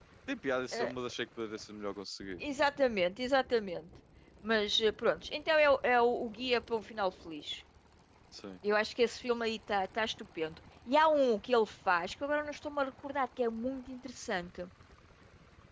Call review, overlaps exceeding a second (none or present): none